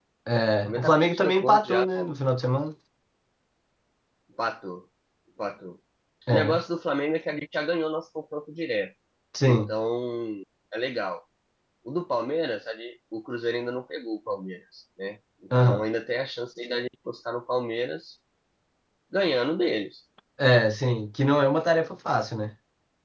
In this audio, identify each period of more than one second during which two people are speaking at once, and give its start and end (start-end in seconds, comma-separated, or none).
0.6-1.9